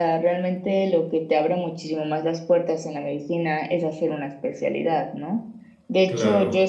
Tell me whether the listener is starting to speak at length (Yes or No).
No